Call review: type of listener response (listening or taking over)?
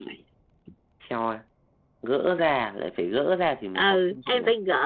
taking over